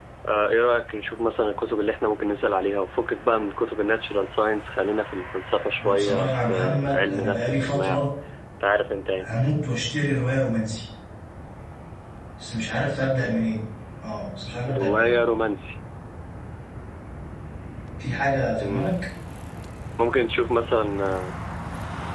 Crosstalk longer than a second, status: present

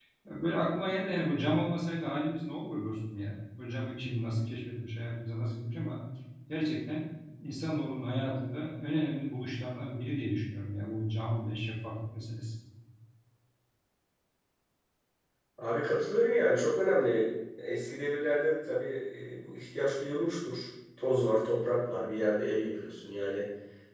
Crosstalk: none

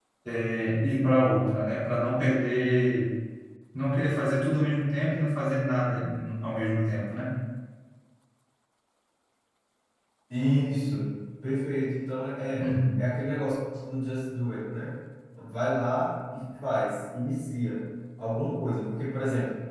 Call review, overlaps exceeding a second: none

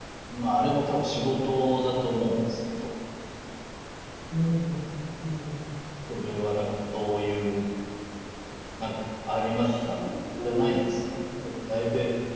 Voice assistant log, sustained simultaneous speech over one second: none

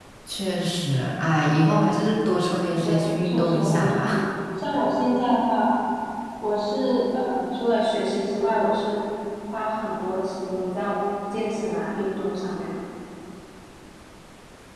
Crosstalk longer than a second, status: present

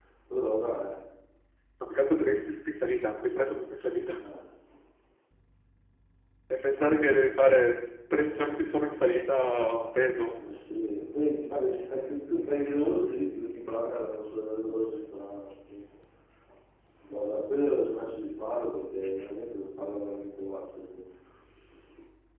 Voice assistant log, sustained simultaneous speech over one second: none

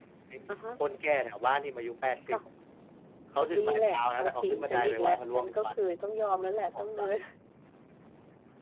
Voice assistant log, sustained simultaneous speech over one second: present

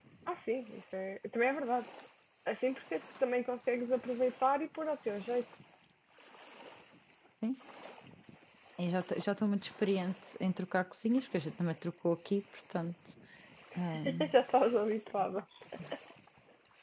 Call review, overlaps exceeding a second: none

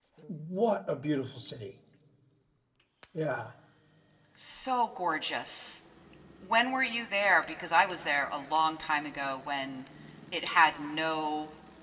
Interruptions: none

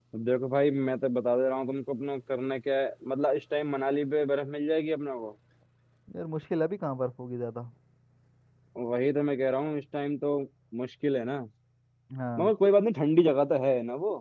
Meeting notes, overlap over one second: none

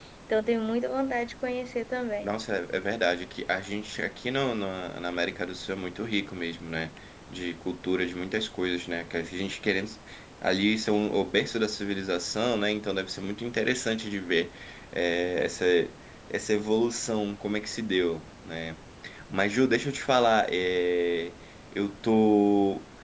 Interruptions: none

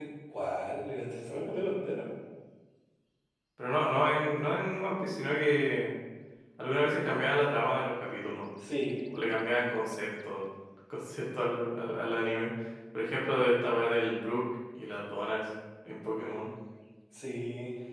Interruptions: none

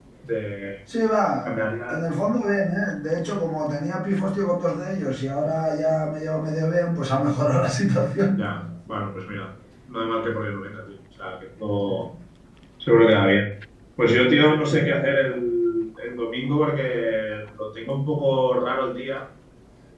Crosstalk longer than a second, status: none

